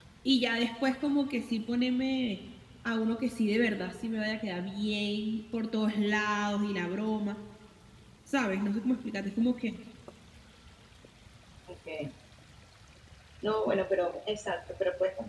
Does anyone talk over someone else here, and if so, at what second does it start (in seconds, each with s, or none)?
none